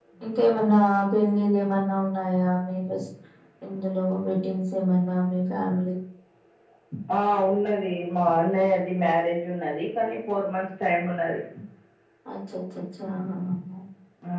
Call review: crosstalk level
none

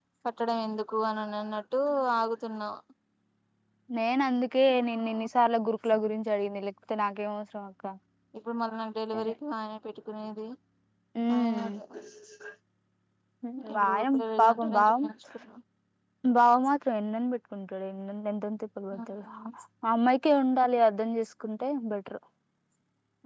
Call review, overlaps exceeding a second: present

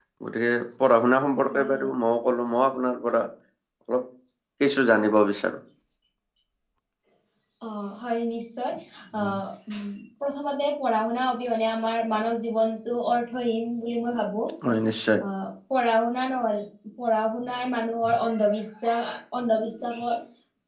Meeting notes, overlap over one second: none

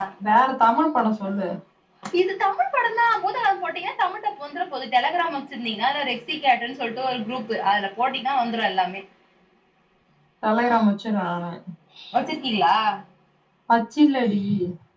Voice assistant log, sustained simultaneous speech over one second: none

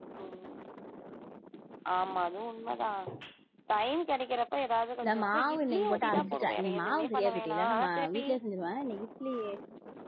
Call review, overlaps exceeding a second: present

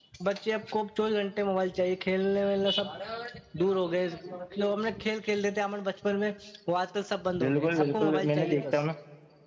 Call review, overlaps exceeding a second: present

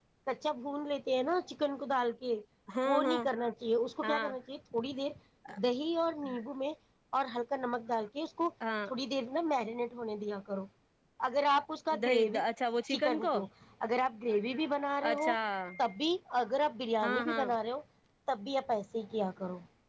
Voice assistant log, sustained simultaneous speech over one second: none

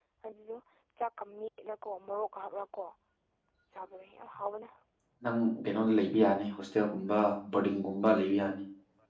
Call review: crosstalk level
none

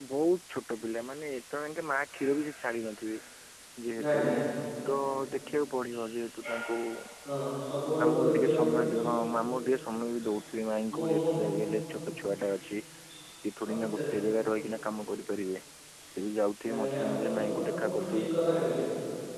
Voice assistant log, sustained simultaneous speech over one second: present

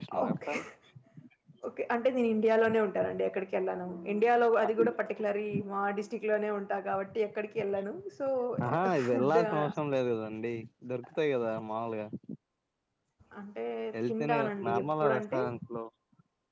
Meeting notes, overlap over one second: present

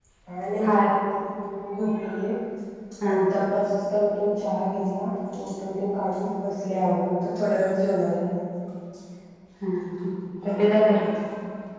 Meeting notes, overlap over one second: none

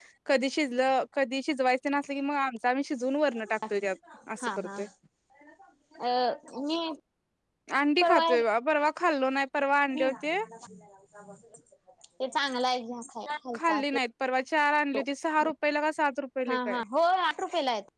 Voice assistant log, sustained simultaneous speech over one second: none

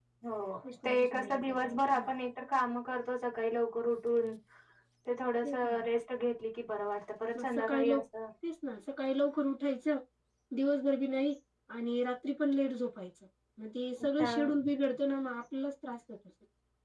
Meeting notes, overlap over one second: present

